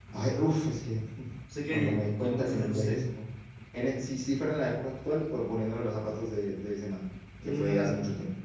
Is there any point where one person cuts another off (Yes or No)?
Yes